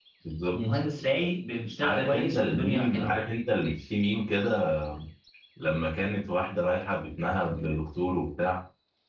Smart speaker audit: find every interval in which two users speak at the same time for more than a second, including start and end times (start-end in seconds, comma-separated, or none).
1.8-3.1